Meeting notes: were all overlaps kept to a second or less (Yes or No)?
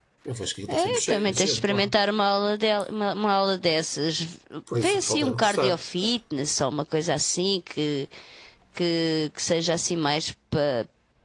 No